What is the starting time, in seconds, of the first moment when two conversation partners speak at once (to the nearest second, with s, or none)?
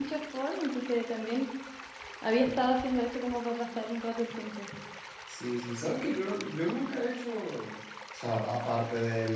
none